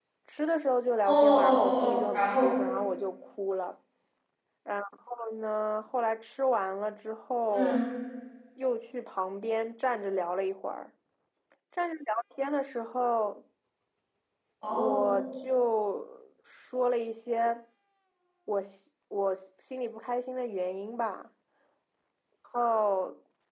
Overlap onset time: 1 s

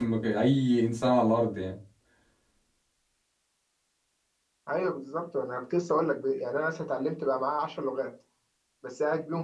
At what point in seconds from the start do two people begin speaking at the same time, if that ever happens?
none

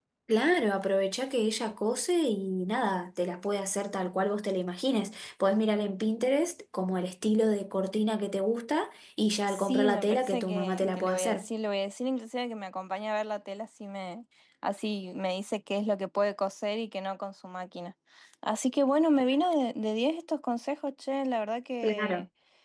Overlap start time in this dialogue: 9 s

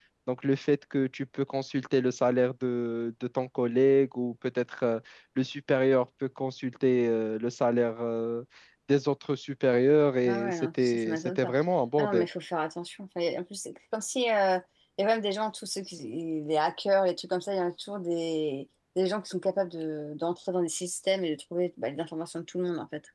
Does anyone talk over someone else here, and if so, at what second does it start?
10 s

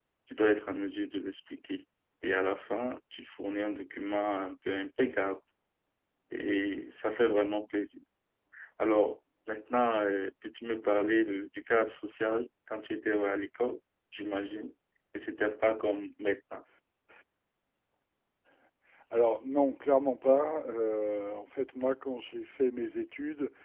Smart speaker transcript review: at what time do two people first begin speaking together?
none

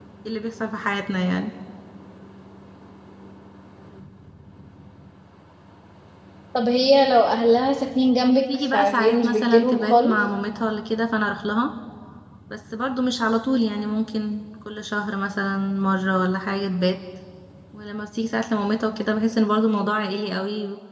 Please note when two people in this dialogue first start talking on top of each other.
8 s

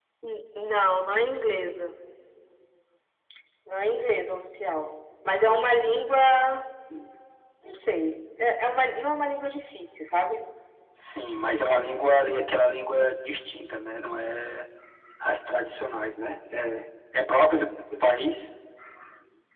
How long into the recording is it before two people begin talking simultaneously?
none

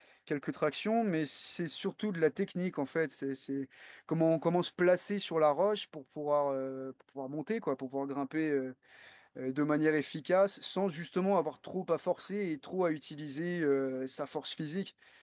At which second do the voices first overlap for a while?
none

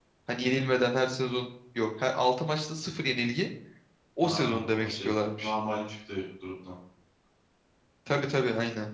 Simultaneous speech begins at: 4 s

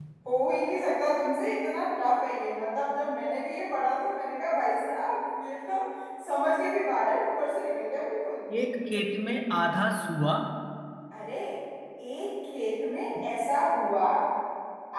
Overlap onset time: none

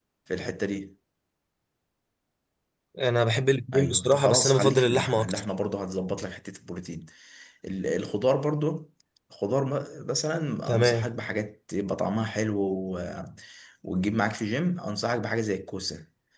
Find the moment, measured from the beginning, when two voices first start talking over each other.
4 s

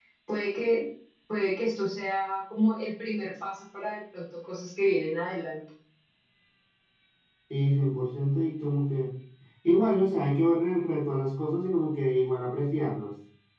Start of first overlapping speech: none

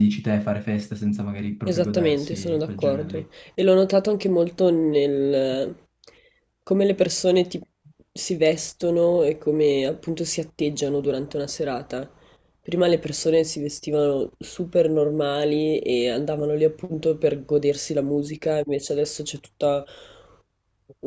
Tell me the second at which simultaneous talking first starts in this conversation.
2 s

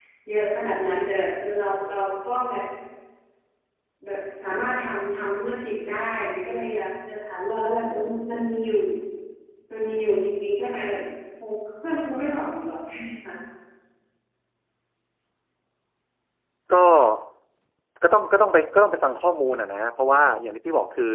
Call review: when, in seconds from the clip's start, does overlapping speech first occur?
none

